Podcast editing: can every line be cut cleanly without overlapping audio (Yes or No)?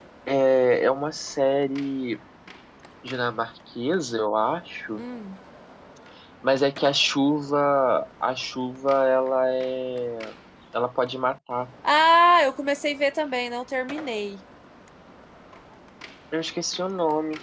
Yes